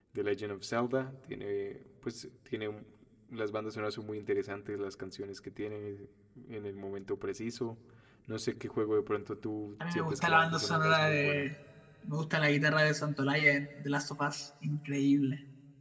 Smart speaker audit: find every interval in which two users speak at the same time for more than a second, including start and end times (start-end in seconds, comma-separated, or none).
9.9-11.5